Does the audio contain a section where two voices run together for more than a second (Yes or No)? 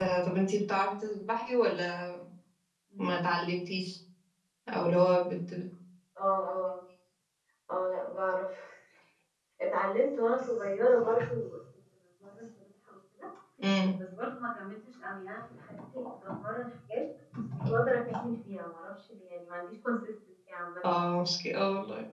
No